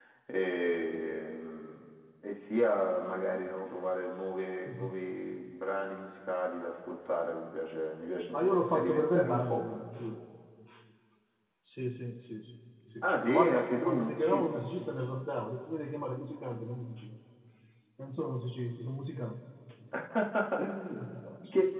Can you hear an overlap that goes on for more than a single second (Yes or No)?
Yes